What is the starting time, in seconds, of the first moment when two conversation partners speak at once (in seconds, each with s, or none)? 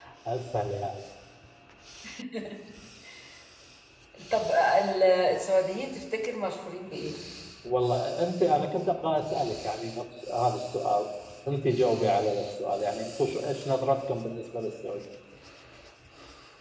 none